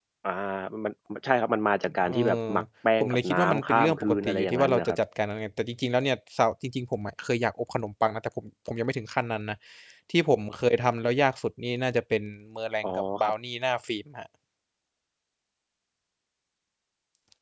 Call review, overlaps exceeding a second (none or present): present